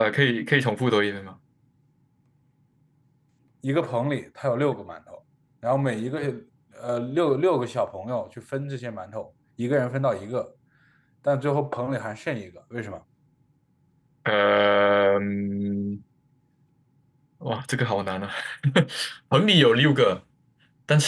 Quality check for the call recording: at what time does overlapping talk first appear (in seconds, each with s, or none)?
none